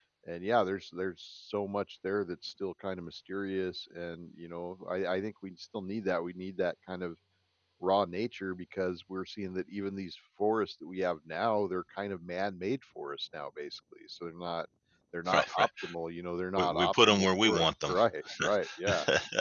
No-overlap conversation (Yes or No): No